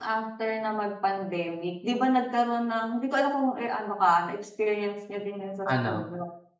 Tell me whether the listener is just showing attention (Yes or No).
Yes